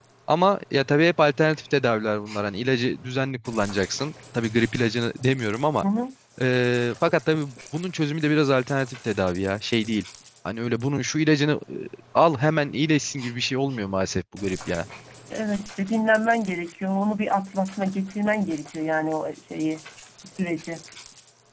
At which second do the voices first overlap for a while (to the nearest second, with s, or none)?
none